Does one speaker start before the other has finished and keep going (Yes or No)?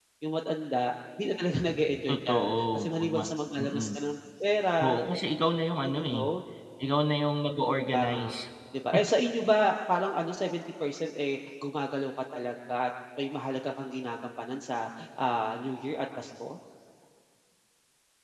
Yes